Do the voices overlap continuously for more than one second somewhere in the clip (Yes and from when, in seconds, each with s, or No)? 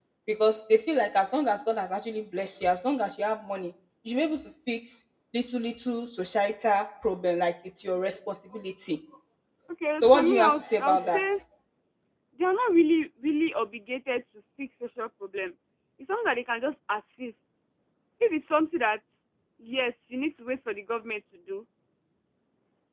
Yes, from 10.0 s